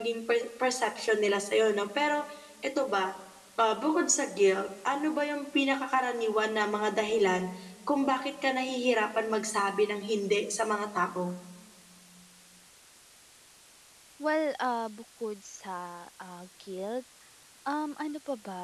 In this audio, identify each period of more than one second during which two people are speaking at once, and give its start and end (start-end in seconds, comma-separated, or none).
none